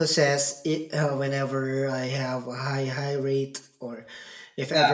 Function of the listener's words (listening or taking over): listening